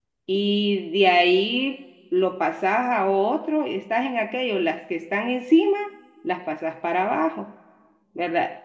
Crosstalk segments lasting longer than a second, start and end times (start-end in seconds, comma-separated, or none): none